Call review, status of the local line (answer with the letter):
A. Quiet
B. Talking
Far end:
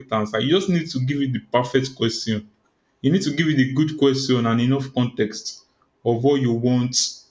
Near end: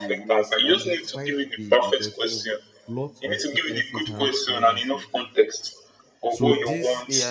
B